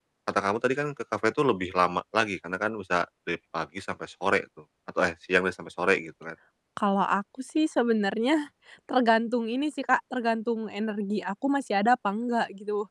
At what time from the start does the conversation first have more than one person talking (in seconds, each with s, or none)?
none